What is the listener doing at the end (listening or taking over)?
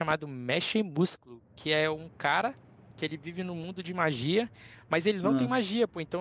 listening